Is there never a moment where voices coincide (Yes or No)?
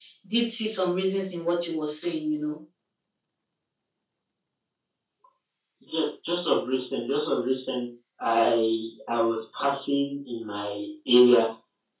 Yes